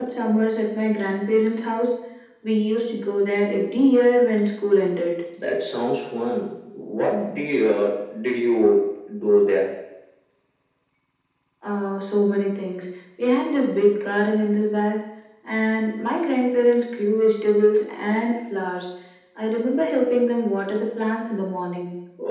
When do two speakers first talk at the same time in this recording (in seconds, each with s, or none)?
none